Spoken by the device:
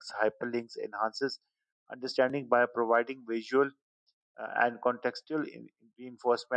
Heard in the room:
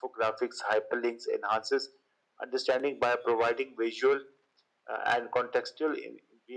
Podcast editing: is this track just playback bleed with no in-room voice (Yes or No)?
Yes